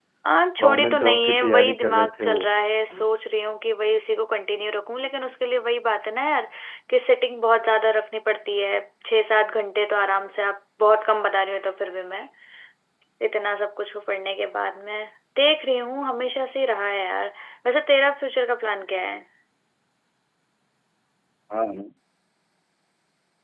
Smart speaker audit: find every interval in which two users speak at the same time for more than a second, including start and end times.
0.6-2.4

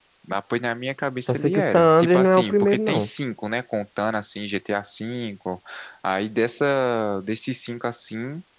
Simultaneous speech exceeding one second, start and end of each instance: 1.3-3.1

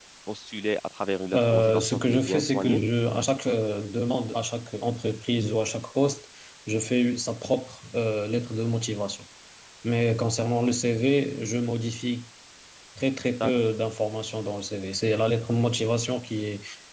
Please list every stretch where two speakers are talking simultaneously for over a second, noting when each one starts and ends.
1.3-2.8

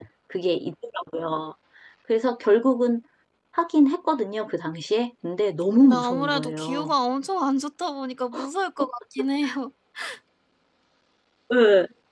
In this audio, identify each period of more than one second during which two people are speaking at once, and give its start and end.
5.7-6.9

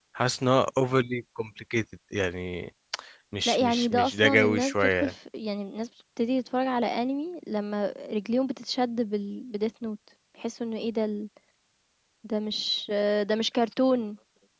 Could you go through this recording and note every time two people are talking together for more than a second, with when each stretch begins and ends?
3.5-5.1

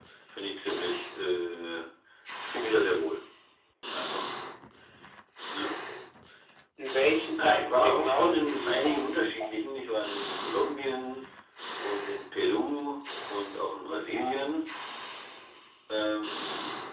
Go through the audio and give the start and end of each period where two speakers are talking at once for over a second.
7.4-9.5

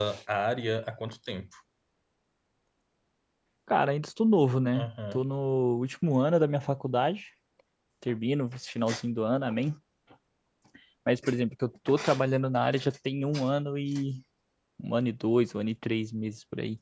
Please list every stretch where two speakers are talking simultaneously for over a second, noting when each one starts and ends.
none

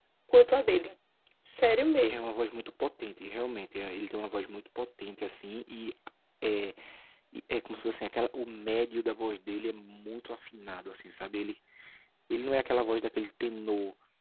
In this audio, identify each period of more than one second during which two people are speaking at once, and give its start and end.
none

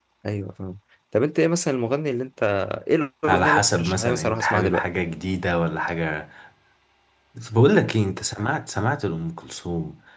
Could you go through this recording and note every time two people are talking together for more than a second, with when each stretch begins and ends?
3.3-4.8

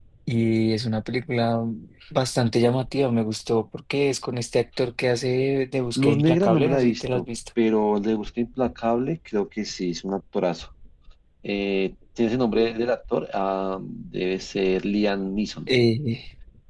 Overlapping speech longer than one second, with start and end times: 6.0-7.2

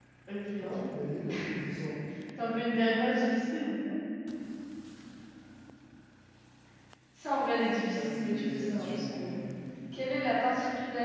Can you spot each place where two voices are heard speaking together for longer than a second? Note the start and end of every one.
7.9-9.3

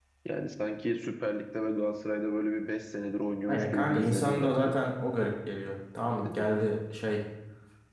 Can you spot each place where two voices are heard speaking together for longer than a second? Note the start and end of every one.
3.5-4.8

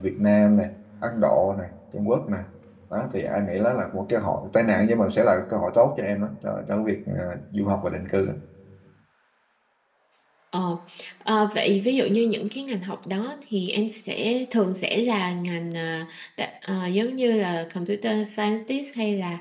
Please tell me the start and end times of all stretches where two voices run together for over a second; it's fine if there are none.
none

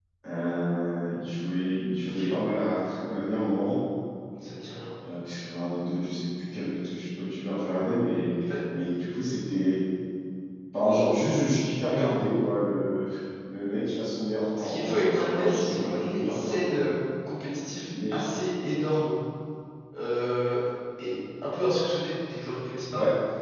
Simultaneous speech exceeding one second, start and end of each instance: 14.6-16.8

